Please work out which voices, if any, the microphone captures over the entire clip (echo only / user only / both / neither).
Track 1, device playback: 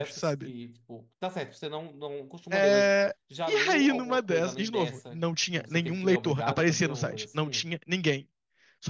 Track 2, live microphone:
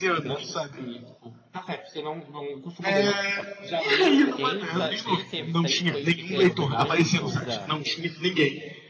both